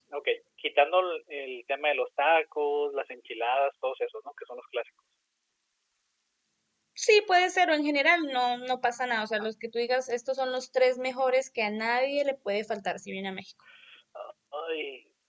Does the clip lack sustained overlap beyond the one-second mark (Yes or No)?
Yes